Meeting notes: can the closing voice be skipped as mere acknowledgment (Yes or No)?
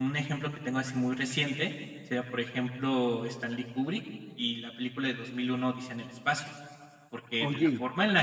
Yes